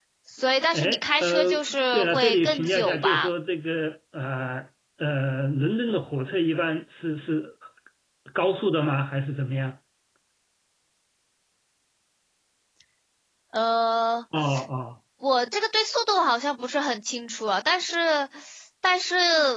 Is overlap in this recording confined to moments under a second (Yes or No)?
No